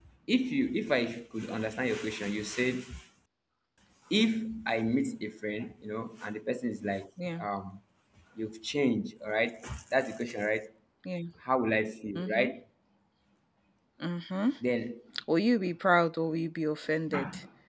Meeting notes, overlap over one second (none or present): none